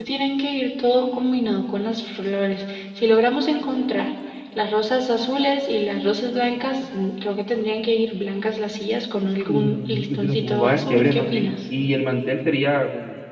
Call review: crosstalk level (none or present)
present